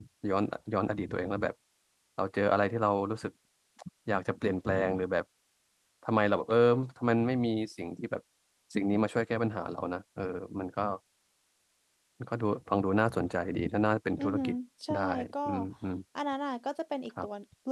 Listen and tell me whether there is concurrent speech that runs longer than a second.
No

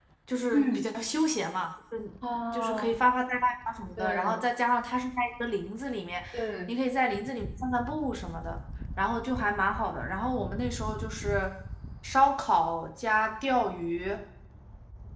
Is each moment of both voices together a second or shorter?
Yes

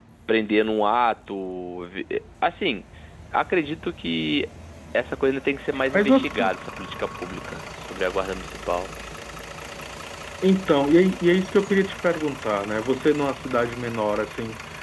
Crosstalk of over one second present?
No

